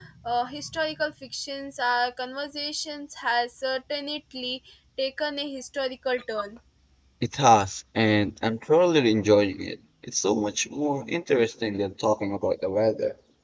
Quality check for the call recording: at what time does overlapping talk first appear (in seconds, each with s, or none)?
none